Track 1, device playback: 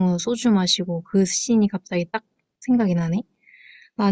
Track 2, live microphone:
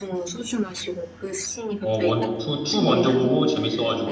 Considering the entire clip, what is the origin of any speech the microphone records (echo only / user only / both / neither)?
both